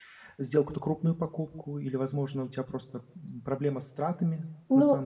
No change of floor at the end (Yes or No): No